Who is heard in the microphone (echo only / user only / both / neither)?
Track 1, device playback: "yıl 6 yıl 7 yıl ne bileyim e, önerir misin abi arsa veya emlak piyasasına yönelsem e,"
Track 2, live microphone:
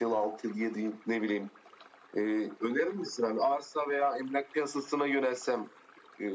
echo only